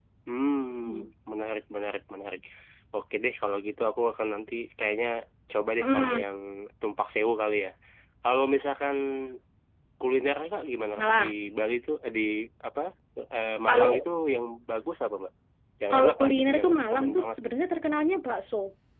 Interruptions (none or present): present